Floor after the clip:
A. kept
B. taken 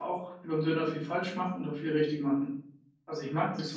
A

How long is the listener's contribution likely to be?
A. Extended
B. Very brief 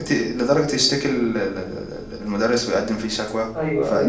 B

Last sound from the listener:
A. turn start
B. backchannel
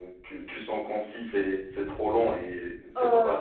B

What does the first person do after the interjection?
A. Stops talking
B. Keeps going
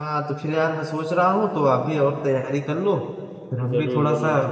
B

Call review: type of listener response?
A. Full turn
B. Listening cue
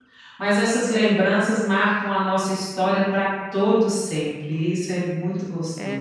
A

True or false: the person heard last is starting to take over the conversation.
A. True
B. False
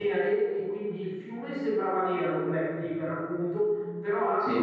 B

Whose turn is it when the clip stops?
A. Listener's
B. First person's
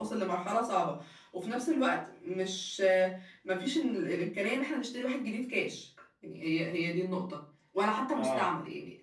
B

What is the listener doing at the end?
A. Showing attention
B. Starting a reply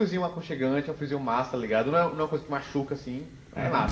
B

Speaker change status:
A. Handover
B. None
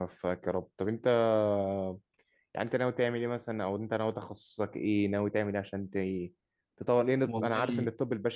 B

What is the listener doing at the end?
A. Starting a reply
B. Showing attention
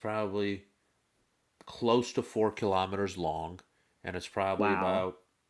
B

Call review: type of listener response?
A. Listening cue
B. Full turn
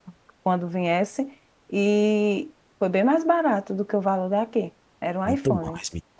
B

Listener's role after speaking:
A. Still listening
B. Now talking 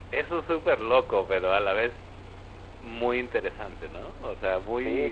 B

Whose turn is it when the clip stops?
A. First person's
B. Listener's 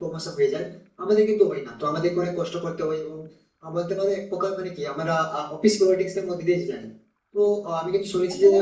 A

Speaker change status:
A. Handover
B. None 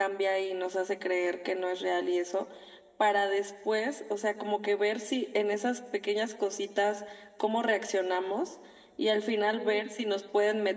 B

